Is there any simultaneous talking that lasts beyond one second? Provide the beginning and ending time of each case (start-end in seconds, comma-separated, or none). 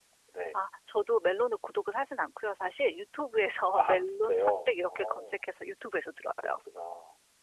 3.7-5.4